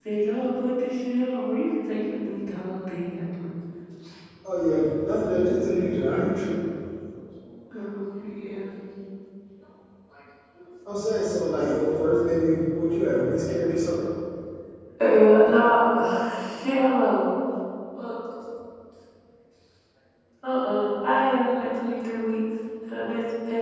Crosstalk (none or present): none